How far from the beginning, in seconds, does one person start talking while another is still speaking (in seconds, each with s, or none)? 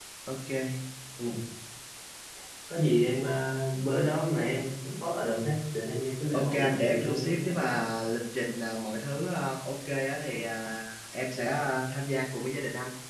6.3 s